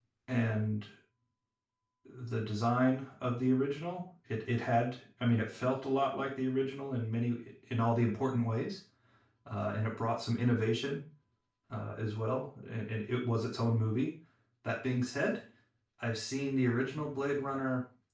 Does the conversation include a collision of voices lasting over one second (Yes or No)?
No